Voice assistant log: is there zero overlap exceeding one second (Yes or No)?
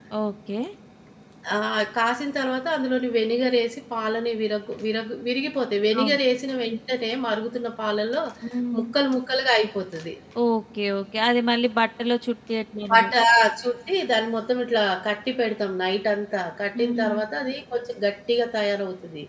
Yes